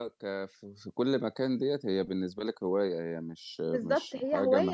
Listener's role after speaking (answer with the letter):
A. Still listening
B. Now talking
B